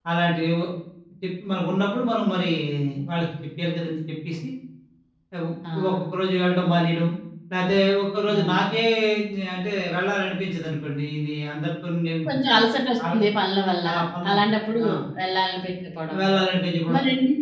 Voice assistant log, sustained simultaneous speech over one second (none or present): none